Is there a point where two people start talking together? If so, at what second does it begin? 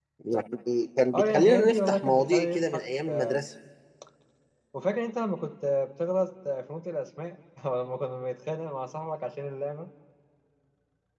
1 s

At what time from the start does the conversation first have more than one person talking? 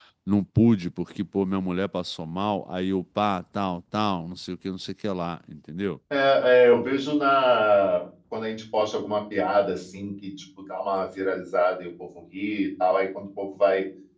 none

